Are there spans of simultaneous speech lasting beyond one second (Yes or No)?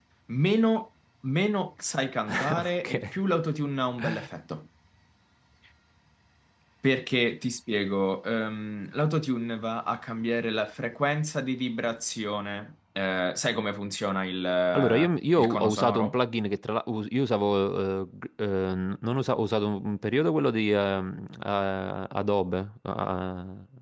Yes